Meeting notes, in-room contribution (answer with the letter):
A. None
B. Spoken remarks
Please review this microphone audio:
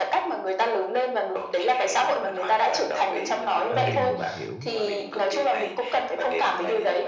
B